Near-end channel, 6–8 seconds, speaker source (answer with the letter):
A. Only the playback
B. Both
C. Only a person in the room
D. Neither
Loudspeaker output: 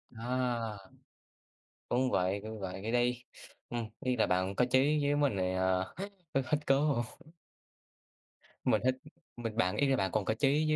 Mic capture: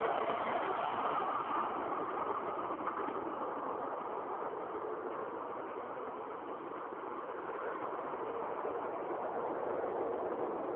D